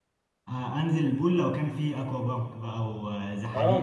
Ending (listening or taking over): taking over